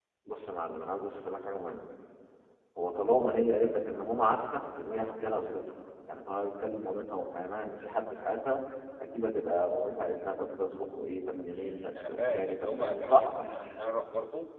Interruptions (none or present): present